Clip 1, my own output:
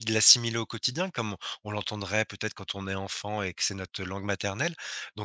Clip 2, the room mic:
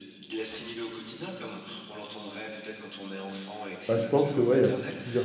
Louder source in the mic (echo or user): user